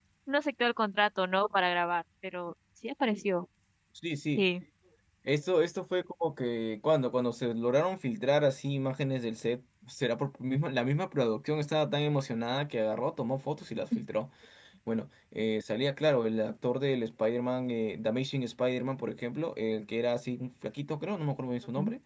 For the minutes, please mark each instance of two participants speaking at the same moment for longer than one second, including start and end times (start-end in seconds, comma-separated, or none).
none